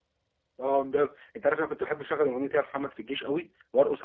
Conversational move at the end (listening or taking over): listening